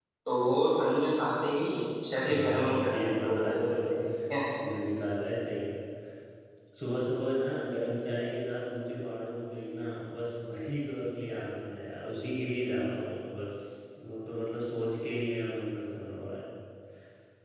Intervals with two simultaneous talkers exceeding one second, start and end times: 2.1-3.8

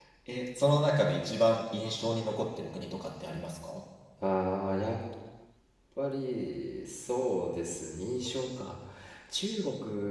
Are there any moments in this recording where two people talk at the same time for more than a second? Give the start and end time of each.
none

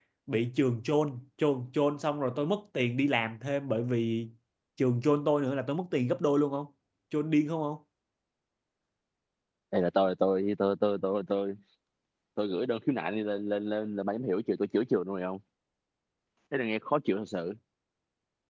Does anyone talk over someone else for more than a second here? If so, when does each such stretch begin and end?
none

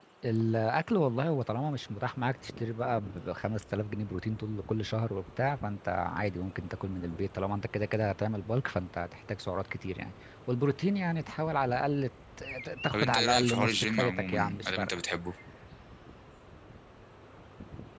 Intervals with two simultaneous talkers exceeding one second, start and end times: 12.9-14.9

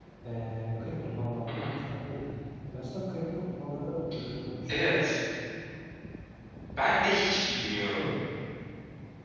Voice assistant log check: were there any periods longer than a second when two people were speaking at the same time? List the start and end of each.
none

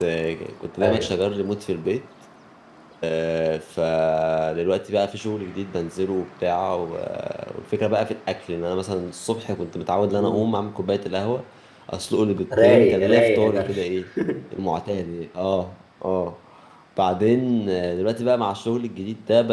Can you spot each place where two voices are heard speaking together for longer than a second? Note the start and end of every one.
12.5-13.8

